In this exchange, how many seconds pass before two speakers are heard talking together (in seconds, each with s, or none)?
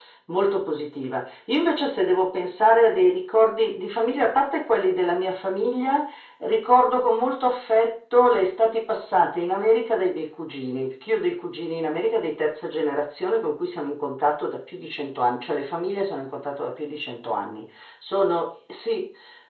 none